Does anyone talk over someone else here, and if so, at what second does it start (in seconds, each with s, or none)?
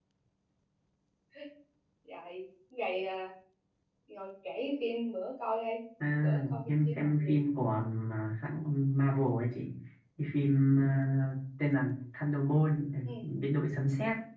6.0 s